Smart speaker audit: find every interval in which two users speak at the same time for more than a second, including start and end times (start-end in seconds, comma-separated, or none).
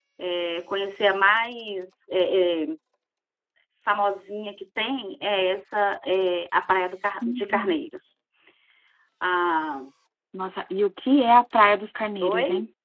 none